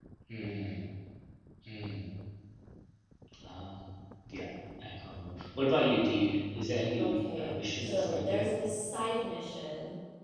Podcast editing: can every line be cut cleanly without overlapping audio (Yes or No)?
No